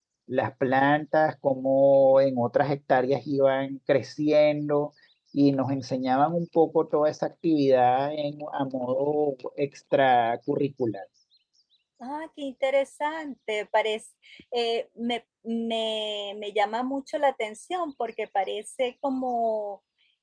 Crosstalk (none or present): none